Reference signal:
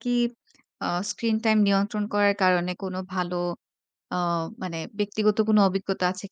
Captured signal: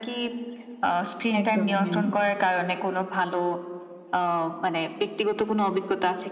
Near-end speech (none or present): present